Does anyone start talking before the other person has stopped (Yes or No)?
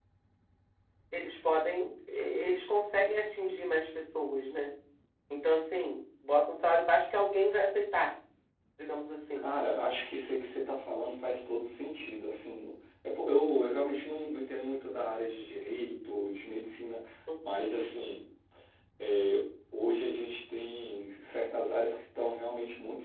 No